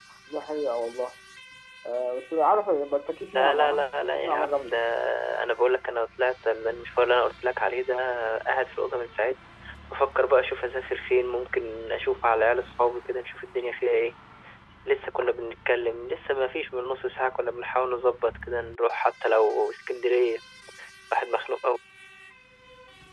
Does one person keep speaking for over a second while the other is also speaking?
Yes, from 3.3 s

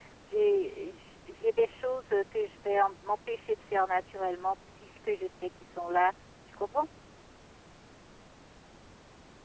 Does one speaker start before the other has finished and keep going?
No

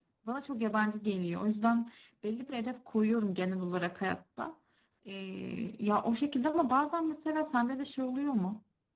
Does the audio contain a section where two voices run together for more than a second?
No

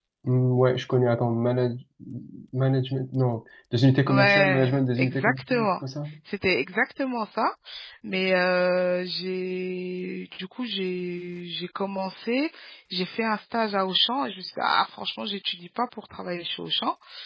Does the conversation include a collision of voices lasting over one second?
Yes, from 4.1 s

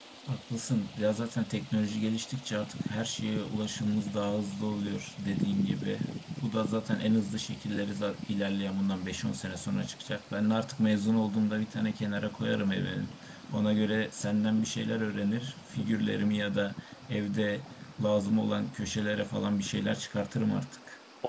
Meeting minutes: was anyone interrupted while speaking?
No

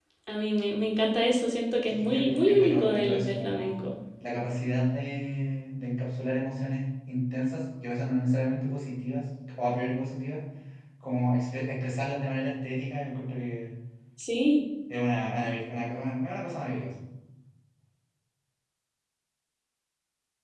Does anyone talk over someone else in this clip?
Yes, from 1.9 s

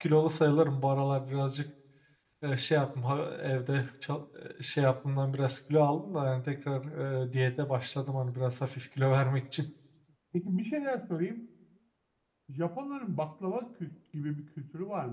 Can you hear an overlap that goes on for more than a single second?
No

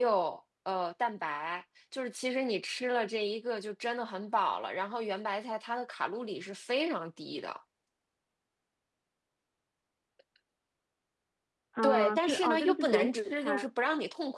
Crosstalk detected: Yes, from 11.8 s

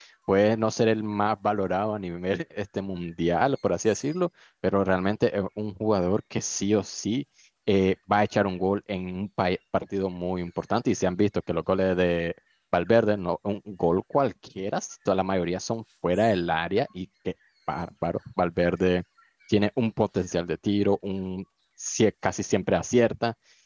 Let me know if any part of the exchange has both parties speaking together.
No

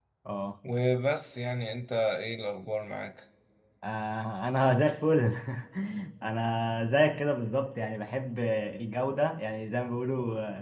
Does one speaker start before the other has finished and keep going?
No

